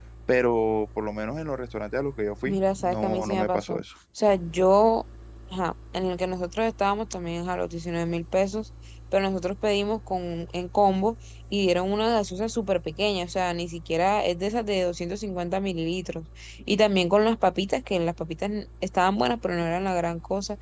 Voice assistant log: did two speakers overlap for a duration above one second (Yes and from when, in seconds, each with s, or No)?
Yes, from 2.5 s